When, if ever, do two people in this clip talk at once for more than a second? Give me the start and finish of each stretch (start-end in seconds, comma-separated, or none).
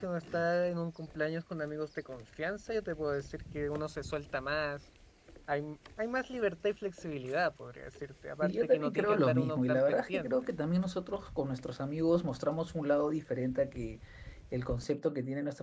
8.4-10.3